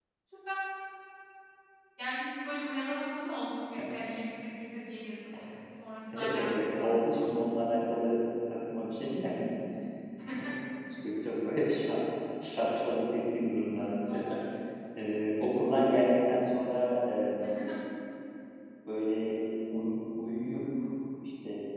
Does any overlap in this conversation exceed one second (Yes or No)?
Yes